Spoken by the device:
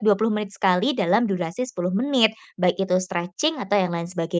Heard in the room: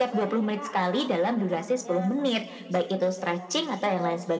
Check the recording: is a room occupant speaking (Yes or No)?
Yes